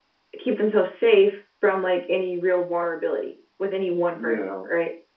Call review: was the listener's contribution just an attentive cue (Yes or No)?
No